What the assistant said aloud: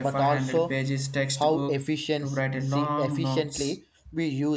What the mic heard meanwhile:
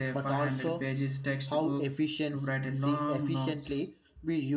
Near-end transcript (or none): none